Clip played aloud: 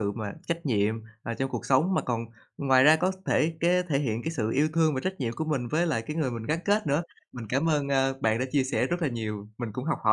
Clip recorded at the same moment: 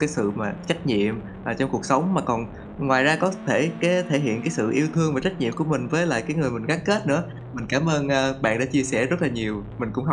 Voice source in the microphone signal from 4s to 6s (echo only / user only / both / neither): echo only